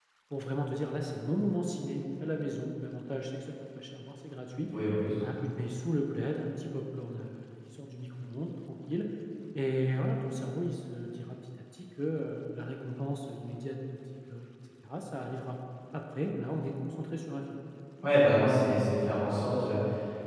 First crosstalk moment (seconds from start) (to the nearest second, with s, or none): none